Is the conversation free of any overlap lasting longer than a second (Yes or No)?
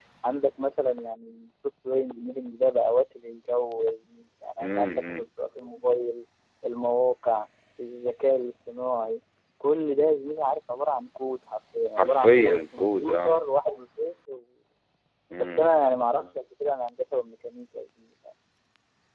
No